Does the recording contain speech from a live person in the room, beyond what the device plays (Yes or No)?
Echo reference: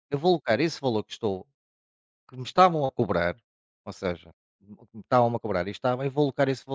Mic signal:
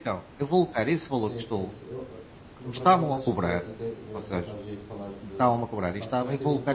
Yes